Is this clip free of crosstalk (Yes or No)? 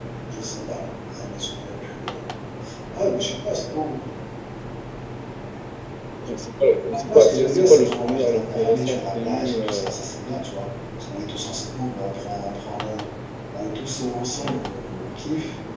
No